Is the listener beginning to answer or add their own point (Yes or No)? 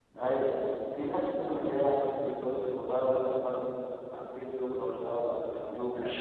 Yes